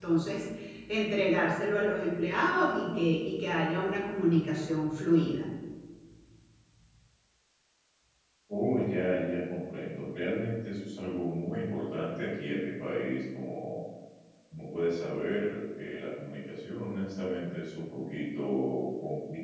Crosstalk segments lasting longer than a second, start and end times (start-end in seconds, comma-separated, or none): none